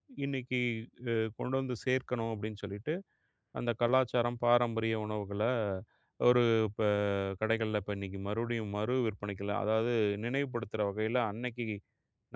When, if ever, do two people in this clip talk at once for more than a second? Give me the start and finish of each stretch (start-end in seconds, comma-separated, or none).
none